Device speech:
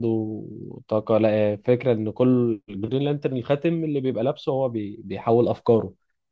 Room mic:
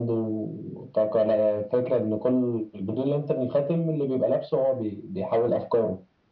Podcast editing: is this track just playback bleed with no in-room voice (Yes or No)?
Yes